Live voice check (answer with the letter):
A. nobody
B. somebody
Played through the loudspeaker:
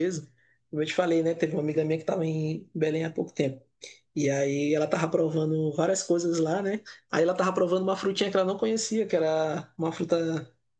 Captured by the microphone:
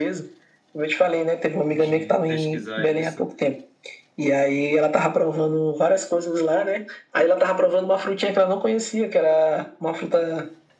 B